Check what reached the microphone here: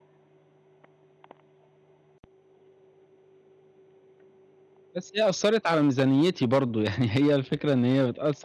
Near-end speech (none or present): present